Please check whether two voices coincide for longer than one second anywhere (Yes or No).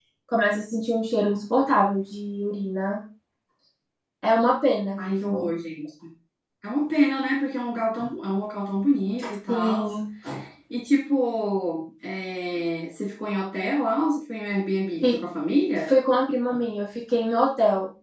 No